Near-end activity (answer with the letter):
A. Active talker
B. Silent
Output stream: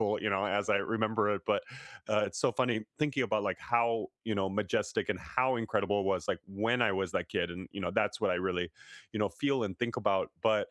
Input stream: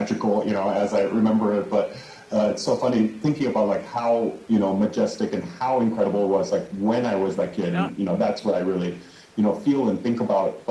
A